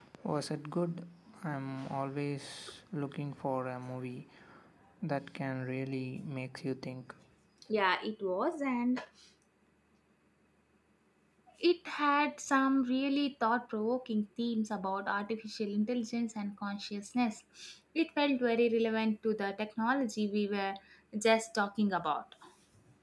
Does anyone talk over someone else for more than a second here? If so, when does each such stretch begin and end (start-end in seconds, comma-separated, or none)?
none